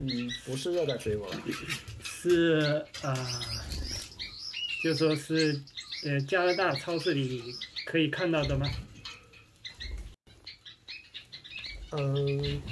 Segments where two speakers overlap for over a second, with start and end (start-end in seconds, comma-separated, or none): none